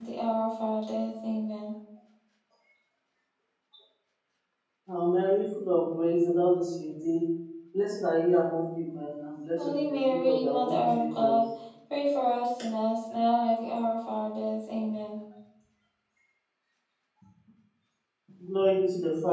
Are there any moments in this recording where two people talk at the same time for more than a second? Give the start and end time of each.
9.6-11.4

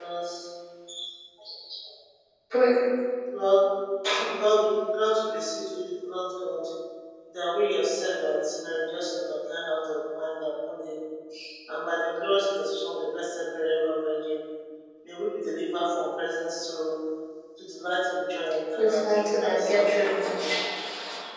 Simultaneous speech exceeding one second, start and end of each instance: 18.8-20.5

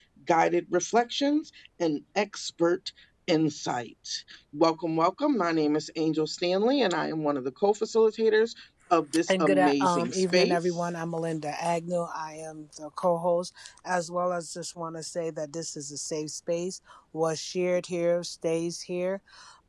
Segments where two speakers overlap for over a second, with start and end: 9.3-10.8

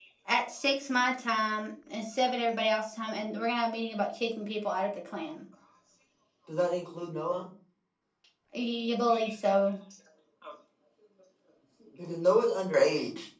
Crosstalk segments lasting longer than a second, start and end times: none

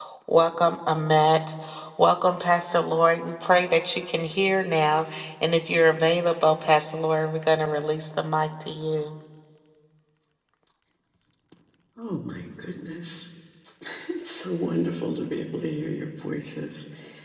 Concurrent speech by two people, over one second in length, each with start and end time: none

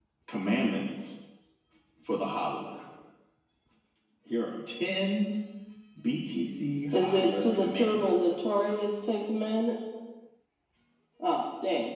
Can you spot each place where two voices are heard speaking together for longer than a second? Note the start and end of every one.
6.9-8.4

